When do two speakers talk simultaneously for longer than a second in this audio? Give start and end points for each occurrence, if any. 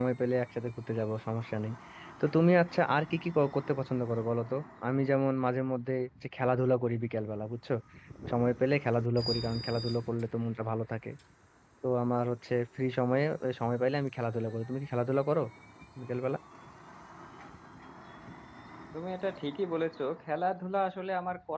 none

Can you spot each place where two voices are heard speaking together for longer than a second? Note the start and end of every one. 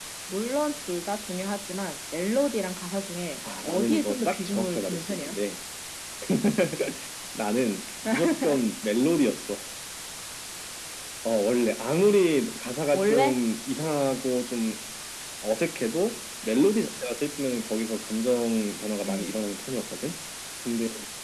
3.6-5.3

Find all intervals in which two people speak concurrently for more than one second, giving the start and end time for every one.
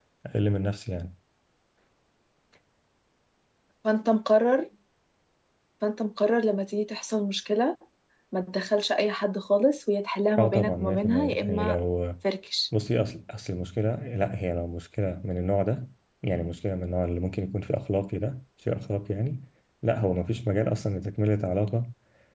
10.4-11.8

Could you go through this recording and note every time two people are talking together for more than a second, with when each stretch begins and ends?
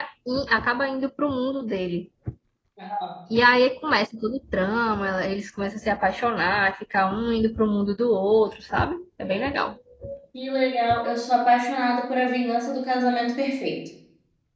none

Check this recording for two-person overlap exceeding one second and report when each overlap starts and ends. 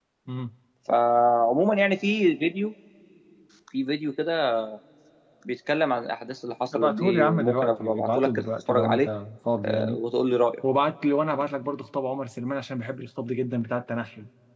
6.8-9.1

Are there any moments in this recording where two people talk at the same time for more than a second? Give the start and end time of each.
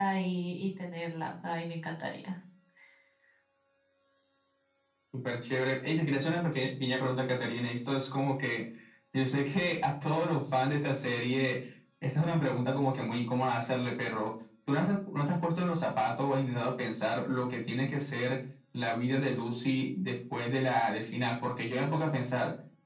none

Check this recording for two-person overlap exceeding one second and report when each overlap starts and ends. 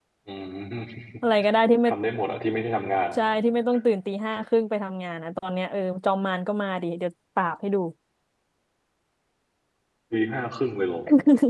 none

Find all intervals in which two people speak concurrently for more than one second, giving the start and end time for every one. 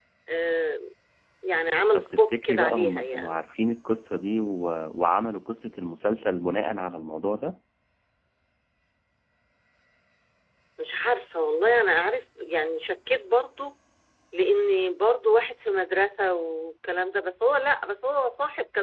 1.9-3.4

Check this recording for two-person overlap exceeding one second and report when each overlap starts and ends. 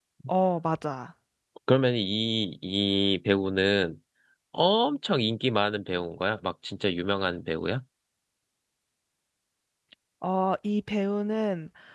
none

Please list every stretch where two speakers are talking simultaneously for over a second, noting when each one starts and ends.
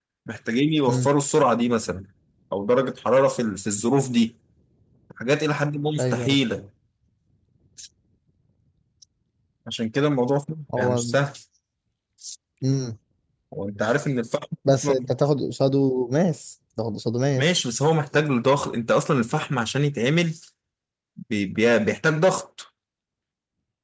none

